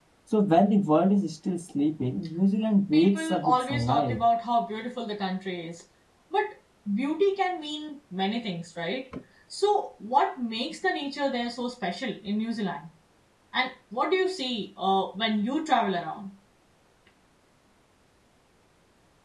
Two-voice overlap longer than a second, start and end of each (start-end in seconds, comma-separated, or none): 2.9-4.2